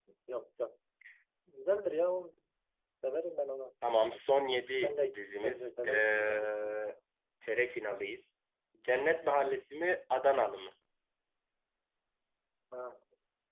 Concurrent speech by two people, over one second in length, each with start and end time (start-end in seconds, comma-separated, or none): 4.8-6.8